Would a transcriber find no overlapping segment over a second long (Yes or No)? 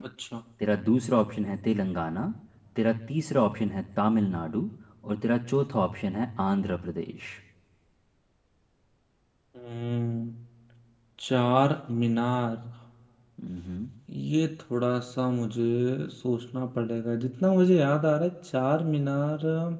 Yes